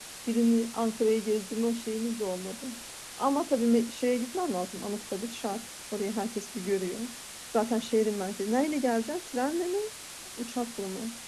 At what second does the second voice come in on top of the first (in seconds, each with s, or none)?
none